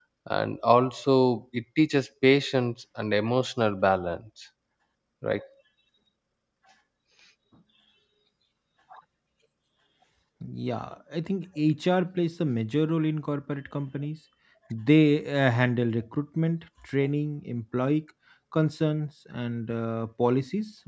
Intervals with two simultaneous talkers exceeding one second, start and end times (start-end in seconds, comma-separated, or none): none